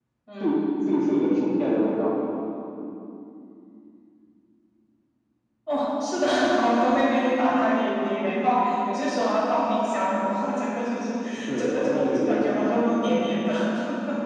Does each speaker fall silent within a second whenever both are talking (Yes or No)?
No